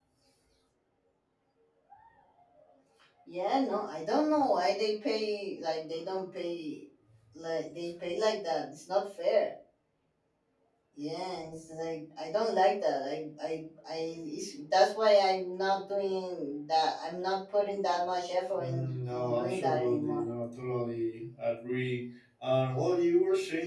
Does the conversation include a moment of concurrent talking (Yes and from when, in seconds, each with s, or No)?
Yes, from 18.6 s